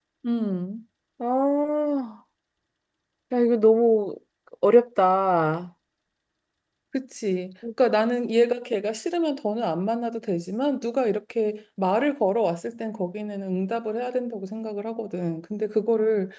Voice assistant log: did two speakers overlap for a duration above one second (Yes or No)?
No